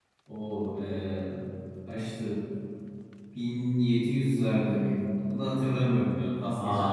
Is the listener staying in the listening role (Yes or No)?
No